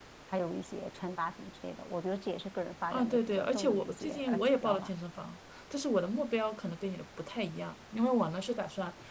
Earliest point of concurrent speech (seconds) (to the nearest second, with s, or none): 3 s